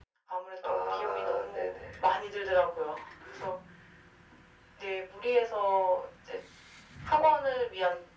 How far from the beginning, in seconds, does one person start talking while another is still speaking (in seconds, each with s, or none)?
0.6 s